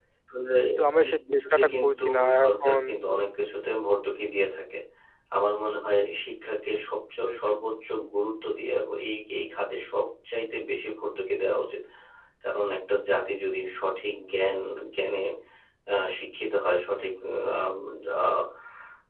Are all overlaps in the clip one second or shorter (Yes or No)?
No